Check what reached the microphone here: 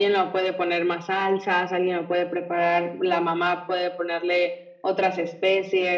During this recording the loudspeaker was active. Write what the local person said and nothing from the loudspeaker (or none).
none